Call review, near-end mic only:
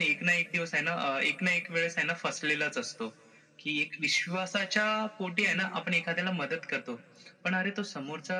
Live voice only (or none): हं, हं, हं.